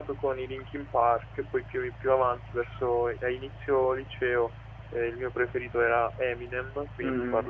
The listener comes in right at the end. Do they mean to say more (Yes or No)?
Yes